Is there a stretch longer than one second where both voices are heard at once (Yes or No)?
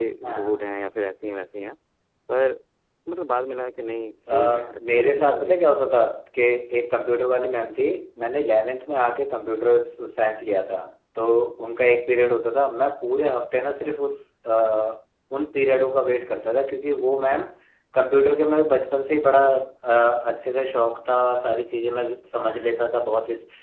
Yes